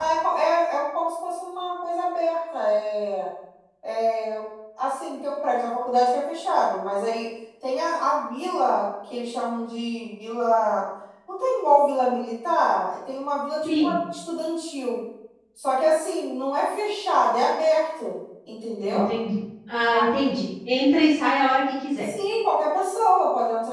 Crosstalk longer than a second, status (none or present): none